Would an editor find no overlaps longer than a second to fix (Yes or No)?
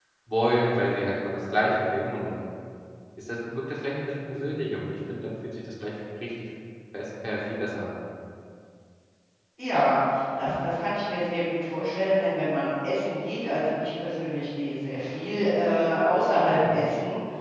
Yes